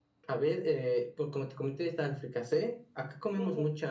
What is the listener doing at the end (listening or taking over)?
taking over